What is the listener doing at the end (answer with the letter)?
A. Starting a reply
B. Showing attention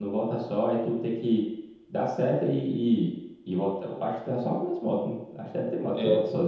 A